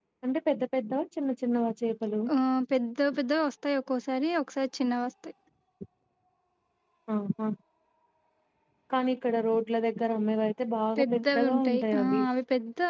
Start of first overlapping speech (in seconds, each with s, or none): 11.0 s